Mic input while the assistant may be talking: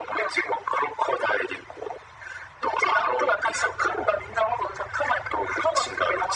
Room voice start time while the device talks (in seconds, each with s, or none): none